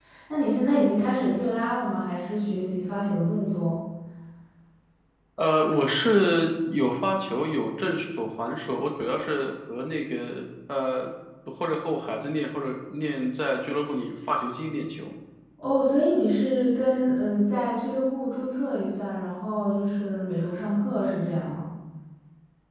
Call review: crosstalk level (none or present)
none